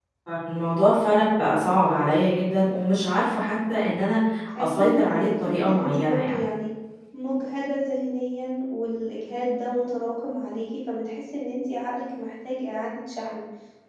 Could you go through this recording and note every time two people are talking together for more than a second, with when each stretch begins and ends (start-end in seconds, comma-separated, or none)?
4.6-6.4